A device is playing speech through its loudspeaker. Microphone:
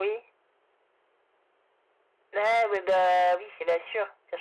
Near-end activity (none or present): none